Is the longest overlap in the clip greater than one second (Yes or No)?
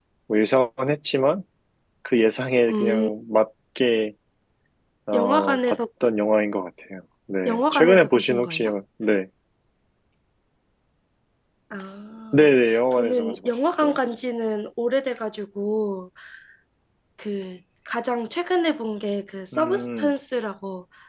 Yes